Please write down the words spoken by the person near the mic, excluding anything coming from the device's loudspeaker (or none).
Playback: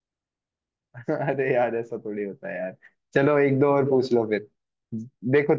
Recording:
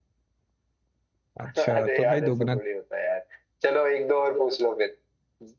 अच्छा तो भाई दोगुना